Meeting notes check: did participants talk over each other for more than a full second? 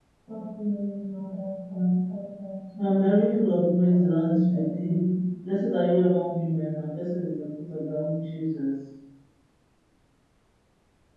Yes, from 2.8 s

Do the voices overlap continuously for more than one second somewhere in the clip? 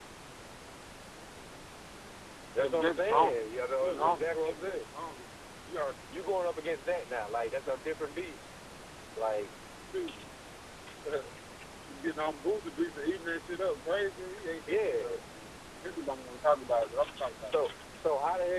Yes, from 2.6 s

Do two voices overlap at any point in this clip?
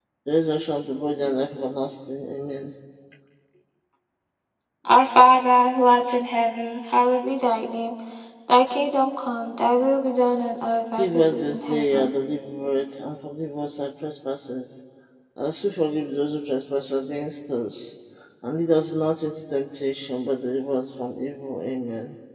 Yes, from 10.9 s

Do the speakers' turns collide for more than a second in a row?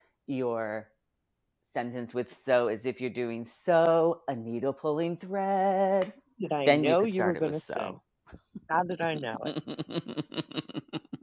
Yes, from 6.7 s

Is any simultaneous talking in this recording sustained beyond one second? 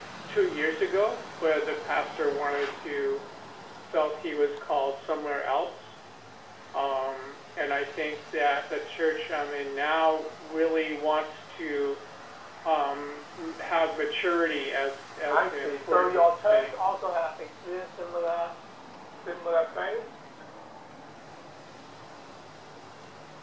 Yes, from 15.3 s

